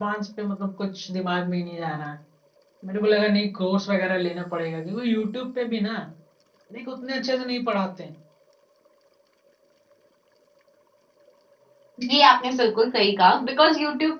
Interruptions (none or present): none